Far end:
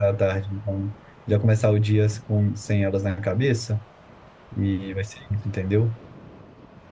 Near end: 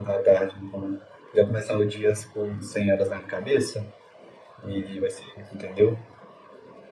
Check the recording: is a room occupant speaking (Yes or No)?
No